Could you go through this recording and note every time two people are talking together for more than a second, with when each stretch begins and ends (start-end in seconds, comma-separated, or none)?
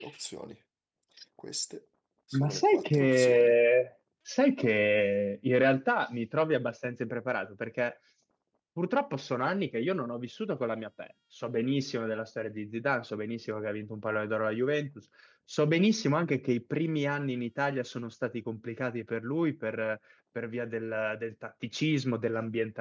2.3-3.5